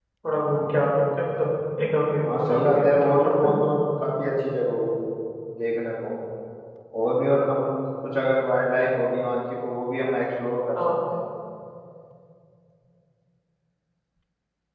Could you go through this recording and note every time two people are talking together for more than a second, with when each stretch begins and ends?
2.2-3.6

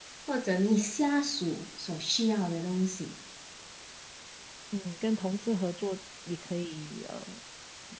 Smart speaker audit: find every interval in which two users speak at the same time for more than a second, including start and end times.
none

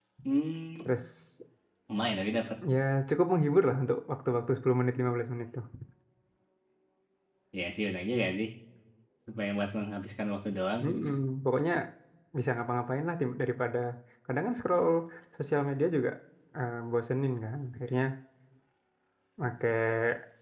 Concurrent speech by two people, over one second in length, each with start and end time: none

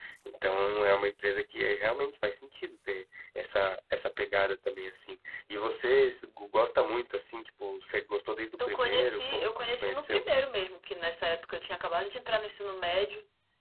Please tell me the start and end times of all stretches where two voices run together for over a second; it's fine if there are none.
8.6-10.2

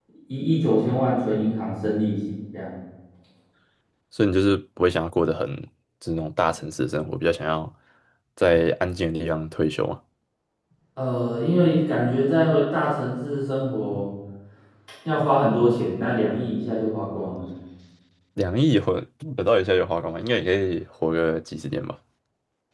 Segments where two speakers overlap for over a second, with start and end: none

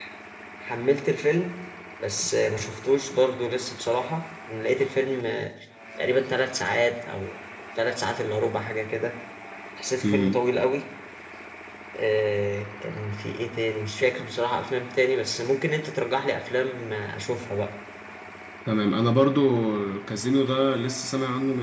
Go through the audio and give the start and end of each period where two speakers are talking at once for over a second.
none

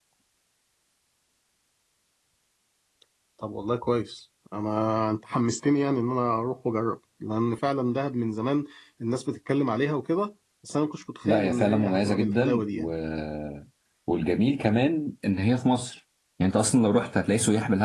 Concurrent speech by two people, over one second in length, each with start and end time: 11.2-12.9

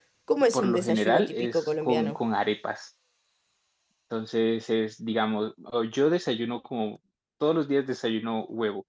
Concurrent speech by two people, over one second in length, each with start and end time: 0.5-2.2

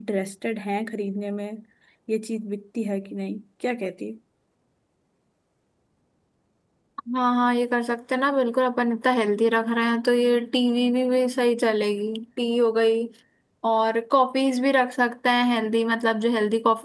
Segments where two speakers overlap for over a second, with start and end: none

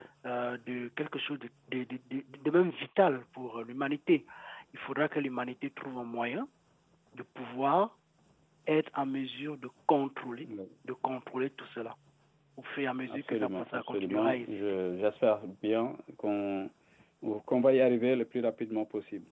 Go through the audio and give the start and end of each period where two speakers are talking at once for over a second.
13.1-14.6

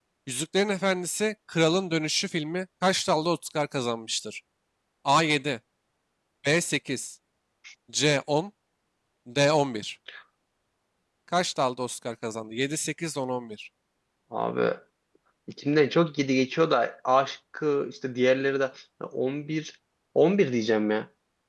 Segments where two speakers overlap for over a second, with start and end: none

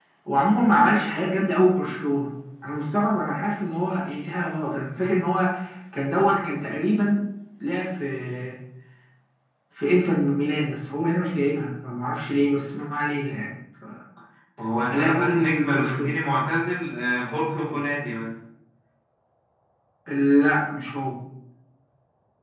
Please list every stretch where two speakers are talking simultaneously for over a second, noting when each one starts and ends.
14.8-16.1

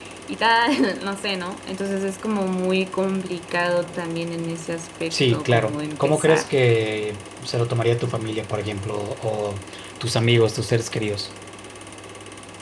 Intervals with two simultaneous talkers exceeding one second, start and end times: 5.1-6.5

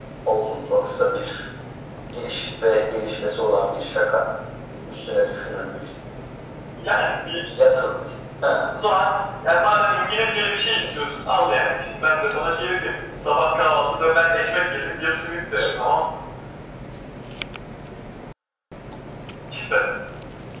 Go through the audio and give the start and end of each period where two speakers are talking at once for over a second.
none

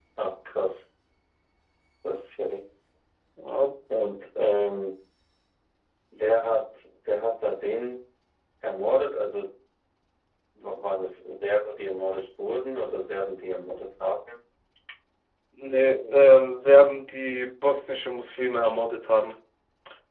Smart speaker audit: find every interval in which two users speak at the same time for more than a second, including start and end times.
none

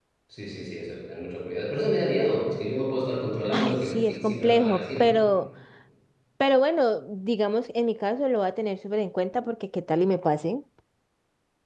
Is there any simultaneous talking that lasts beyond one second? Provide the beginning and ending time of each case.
3.5-5.2

